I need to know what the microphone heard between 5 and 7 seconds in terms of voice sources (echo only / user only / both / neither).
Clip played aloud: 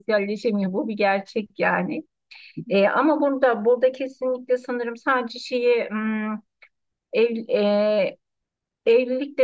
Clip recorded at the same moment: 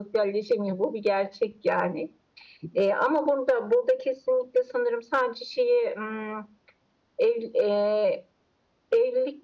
echo only